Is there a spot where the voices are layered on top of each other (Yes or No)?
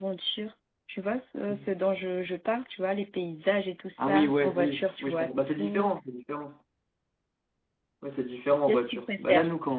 Yes